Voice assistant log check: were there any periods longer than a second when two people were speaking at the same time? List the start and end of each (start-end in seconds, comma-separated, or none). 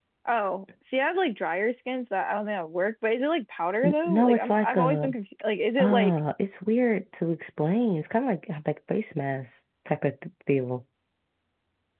3.8-5.1